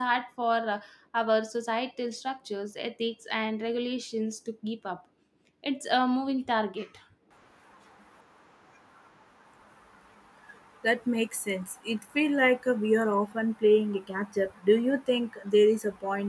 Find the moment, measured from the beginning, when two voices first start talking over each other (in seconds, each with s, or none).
none